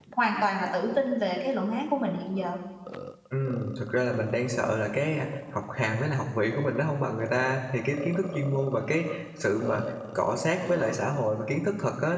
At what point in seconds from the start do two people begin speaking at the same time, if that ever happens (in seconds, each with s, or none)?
none